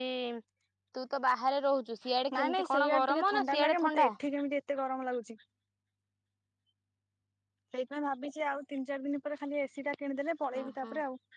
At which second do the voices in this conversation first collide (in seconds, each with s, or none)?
2.4 s